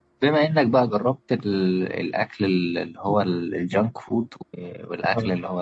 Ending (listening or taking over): listening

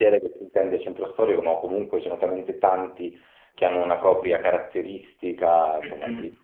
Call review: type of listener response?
taking over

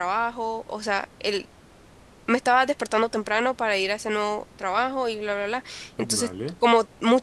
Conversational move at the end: listening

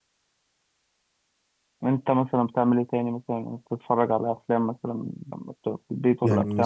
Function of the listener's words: taking over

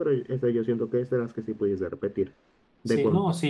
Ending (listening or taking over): taking over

